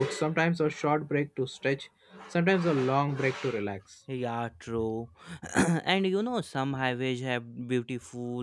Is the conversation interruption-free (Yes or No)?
Yes